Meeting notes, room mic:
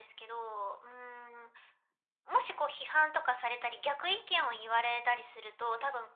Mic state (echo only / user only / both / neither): echo only